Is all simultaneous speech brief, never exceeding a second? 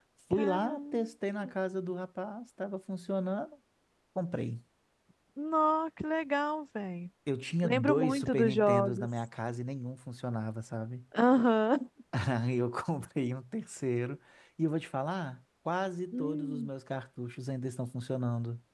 No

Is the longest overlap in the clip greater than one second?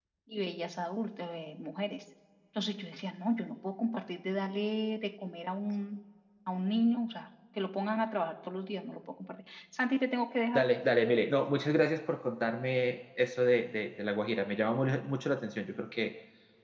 No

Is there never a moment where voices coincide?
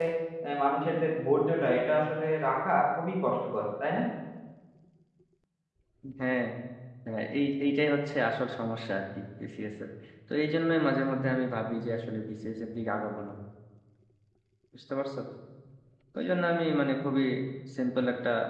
Yes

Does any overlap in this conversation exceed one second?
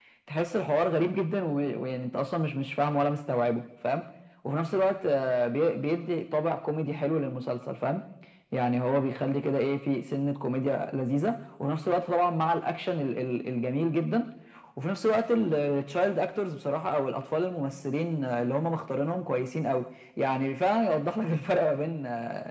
No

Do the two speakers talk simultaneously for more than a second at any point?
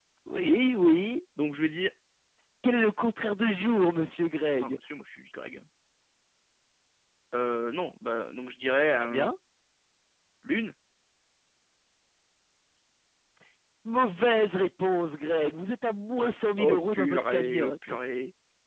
Yes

